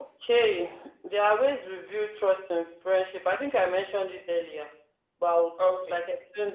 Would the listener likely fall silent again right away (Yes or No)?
Yes